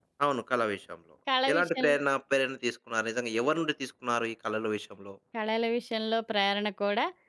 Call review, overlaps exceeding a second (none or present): none